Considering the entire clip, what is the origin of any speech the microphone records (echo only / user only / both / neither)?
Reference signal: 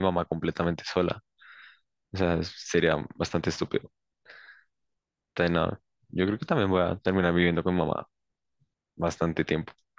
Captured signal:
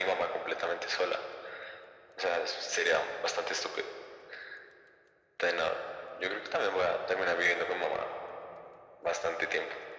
echo only